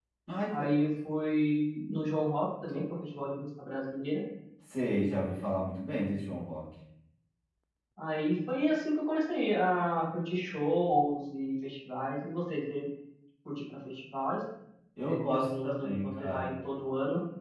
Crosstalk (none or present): present